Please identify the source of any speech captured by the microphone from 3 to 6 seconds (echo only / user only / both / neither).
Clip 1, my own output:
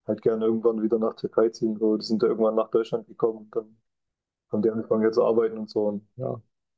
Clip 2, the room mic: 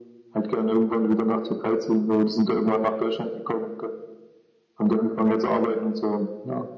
echo only